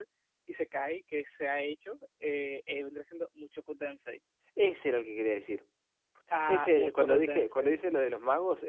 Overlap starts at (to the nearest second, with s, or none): 6 s